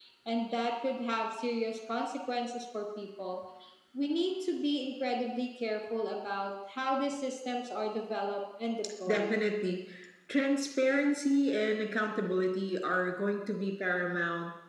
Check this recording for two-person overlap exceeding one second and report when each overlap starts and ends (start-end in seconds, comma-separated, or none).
none